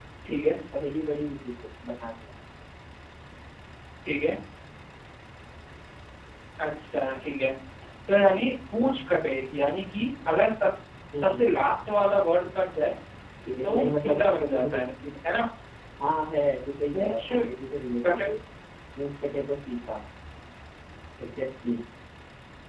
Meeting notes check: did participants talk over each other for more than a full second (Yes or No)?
Yes